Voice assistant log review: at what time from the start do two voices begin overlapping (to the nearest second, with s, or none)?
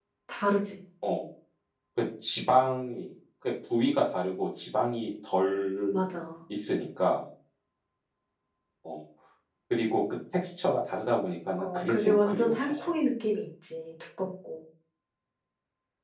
12 s